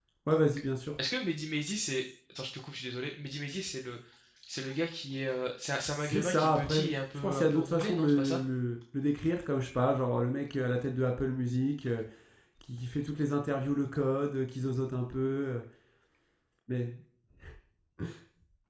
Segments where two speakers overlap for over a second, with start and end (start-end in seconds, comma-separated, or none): 5.8-8.4